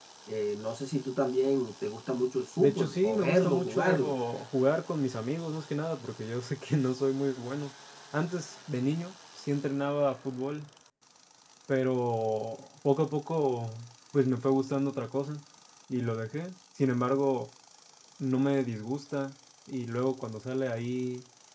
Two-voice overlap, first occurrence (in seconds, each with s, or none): 2.6 s